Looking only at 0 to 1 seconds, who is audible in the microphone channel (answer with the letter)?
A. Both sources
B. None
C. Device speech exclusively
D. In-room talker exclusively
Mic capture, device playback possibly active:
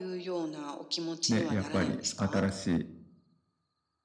C